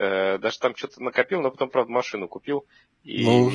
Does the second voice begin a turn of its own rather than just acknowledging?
Yes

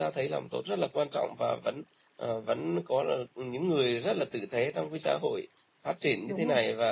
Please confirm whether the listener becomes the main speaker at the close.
No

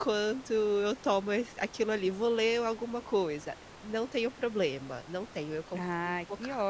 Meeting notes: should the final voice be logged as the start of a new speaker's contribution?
Yes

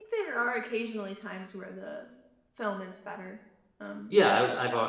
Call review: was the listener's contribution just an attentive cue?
No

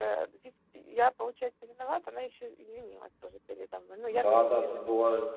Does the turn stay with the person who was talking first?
No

